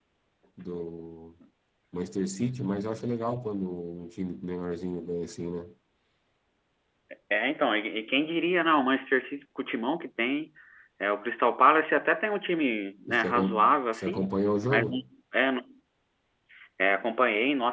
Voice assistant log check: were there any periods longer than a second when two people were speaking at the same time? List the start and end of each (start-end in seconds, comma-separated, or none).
13.1-14.3